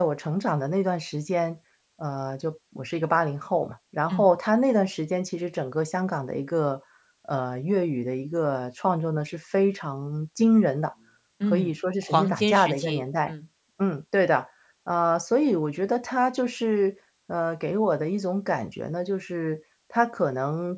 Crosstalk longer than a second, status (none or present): present